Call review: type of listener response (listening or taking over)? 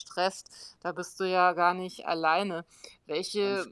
listening